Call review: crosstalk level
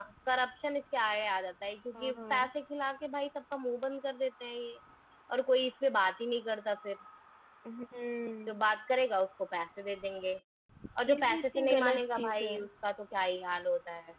present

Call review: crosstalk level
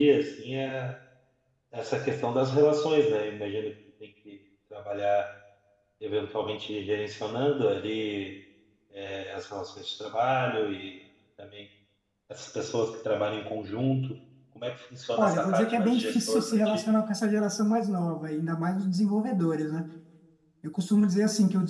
present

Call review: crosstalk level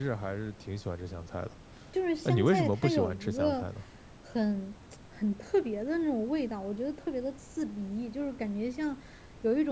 present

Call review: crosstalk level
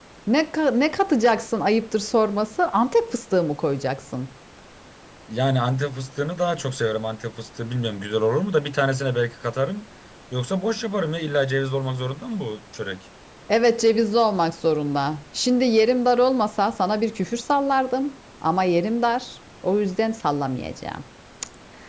none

